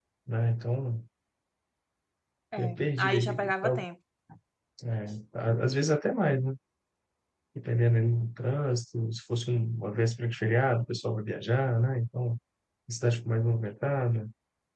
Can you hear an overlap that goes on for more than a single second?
Yes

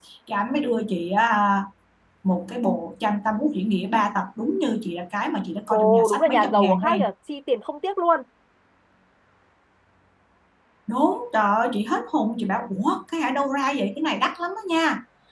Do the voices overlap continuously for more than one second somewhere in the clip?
Yes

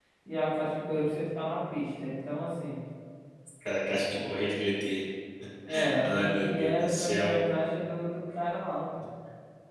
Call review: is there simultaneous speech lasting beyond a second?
Yes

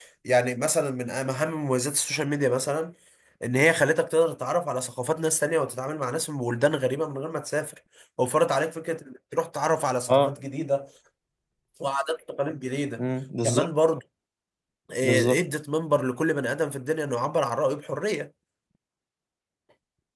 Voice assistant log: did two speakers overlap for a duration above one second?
No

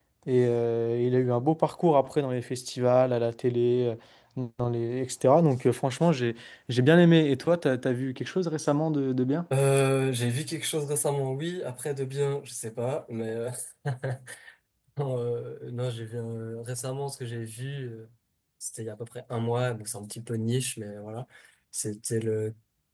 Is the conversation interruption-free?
Yes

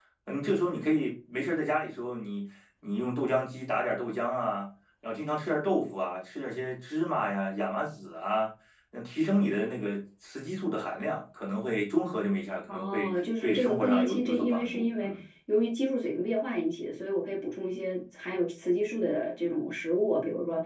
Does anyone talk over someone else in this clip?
Yes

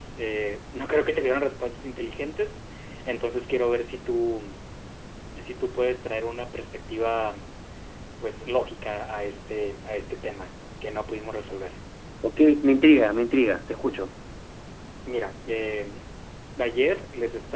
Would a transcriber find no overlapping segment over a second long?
Yes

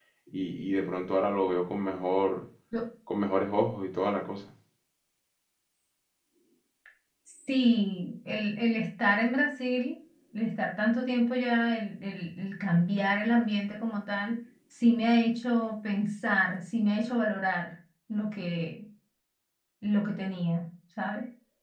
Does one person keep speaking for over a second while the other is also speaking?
No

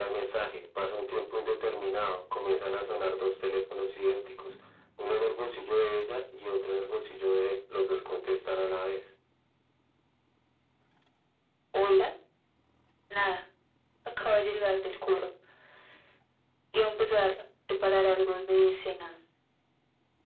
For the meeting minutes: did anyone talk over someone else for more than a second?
No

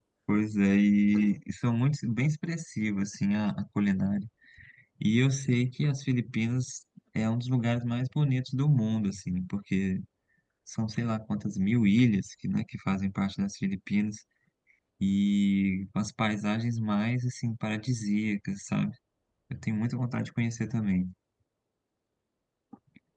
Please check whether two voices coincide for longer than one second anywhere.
No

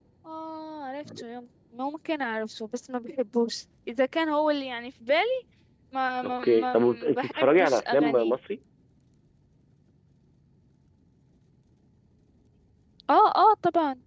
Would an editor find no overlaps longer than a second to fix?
No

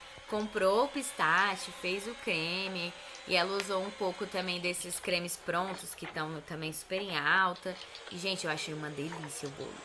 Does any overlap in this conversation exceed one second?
No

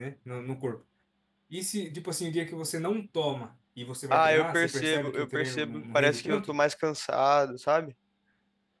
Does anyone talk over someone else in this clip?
Yes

